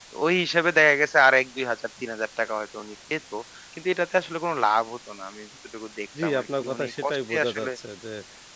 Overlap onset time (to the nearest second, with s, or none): 6 s